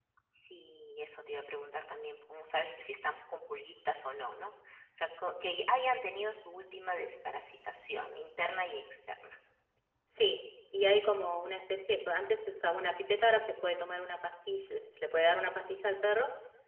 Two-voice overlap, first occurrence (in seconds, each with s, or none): none